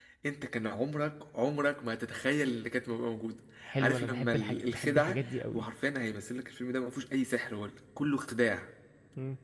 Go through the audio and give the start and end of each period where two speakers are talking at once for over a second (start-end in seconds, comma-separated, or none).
3.6-5.7